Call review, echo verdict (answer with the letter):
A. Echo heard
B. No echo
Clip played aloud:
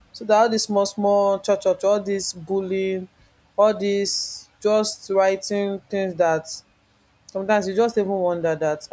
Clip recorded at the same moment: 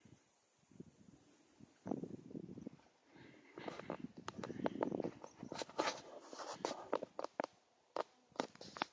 B